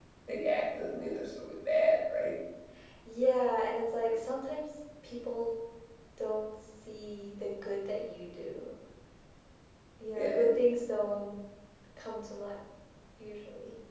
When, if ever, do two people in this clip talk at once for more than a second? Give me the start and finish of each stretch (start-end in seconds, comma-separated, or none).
none